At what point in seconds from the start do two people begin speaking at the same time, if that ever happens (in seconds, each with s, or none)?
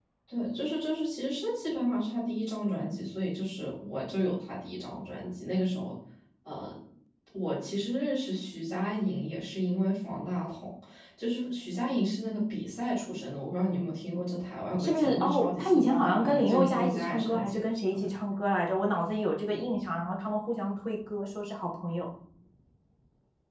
14.8 s